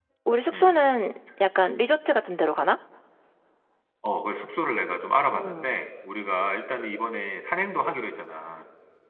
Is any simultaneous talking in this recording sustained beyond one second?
No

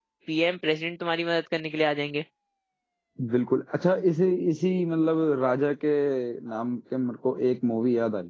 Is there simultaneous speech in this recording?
No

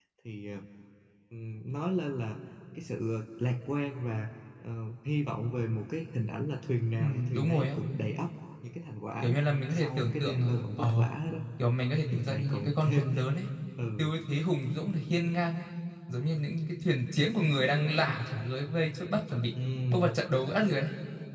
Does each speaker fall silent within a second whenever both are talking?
No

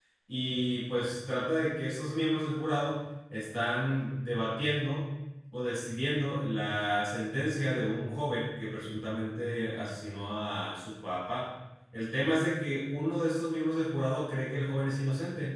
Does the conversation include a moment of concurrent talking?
No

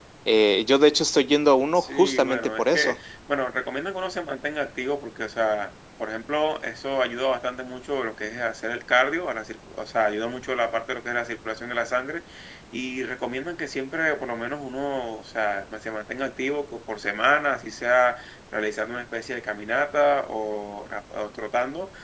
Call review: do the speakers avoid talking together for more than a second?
No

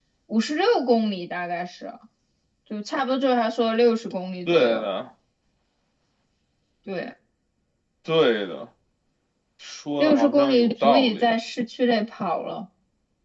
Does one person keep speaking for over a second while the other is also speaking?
Yes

